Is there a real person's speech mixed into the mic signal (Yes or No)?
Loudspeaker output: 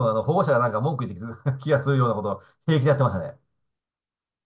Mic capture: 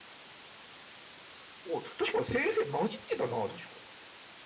Yes